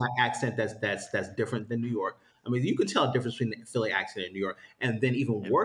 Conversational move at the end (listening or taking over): listening